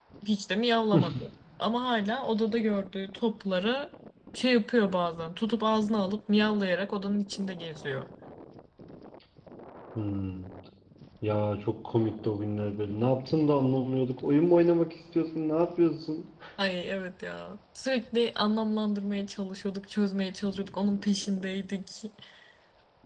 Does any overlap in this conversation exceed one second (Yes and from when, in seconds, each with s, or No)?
No